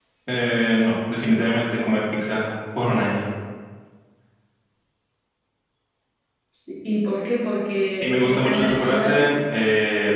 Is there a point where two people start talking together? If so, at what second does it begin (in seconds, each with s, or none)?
8.0 s